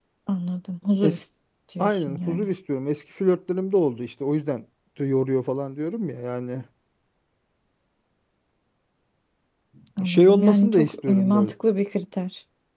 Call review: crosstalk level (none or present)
present